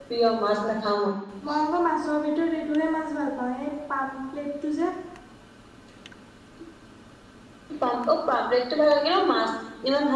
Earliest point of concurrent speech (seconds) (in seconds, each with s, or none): none